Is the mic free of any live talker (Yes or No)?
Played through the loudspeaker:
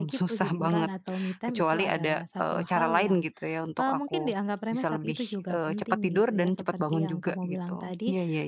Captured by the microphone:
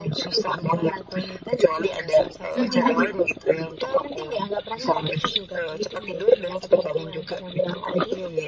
No